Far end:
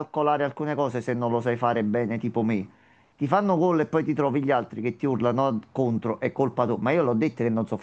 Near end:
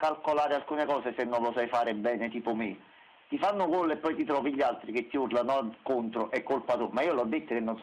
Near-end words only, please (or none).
none